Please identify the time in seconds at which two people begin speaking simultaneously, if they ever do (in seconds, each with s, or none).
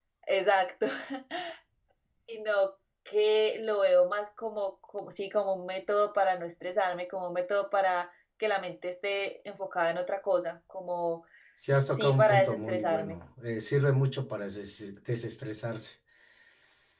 12.0 s